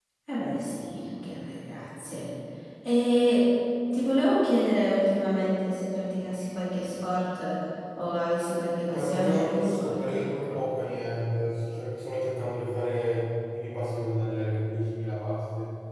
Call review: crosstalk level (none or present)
present